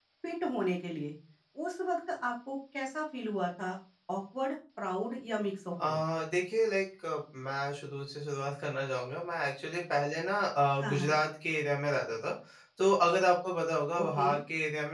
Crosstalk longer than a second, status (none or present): none